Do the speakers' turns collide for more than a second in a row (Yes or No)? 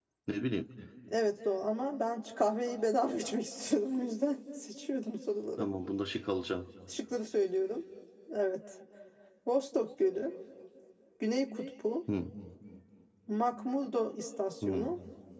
No